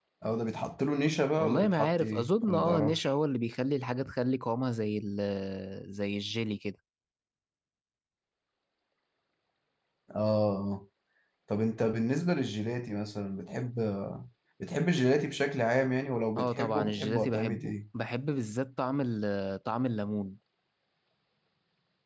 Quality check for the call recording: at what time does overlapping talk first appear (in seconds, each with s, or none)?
1.4 s